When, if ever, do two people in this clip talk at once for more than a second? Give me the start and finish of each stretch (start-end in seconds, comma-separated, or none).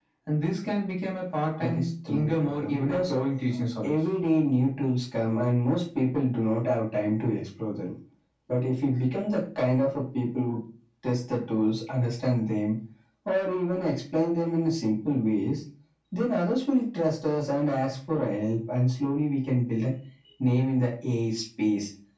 1.6-3.1